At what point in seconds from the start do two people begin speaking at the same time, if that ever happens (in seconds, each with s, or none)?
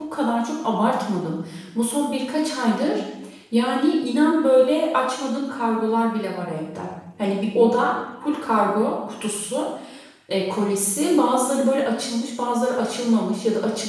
none